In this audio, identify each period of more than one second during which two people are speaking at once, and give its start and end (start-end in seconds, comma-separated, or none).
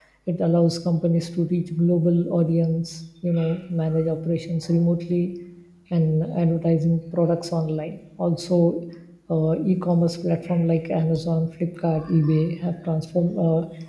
none